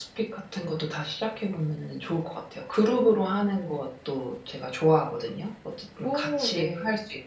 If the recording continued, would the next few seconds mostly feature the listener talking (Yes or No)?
No